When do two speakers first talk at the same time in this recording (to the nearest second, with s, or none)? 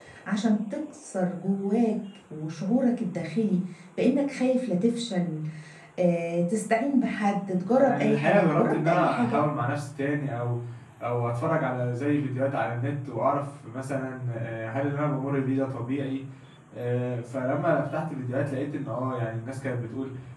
8 s